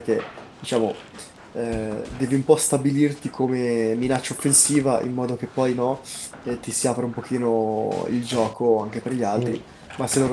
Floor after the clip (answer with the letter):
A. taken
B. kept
B